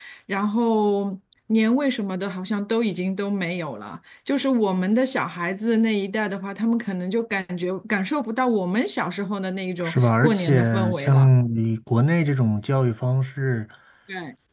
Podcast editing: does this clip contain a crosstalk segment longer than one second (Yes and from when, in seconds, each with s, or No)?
Yes, from 9.8 s